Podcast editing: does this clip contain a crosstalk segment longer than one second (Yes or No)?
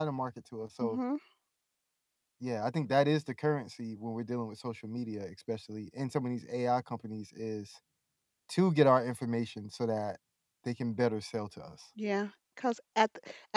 No